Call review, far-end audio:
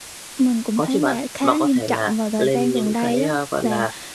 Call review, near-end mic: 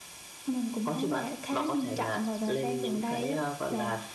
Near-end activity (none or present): none